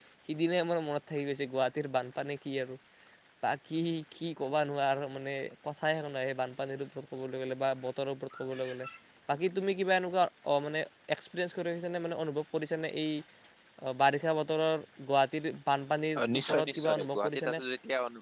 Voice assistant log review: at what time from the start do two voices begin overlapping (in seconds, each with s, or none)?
16.1 s